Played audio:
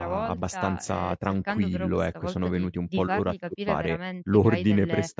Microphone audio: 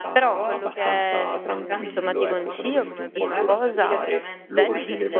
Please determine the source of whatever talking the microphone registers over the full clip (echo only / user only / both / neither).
both